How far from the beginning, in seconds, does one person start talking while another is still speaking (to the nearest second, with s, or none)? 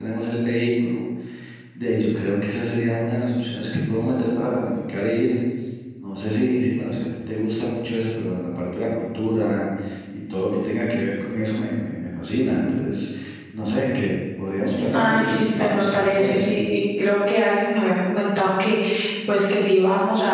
15 s